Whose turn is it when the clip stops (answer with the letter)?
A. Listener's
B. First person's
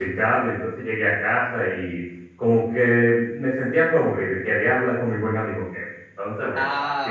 A